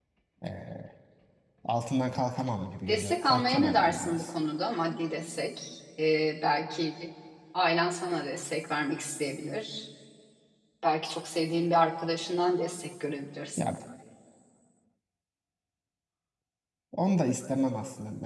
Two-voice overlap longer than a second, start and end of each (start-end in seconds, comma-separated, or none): 2.9-4.3